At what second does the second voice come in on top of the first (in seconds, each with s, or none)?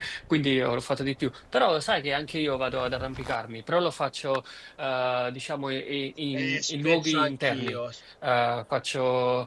6.3 s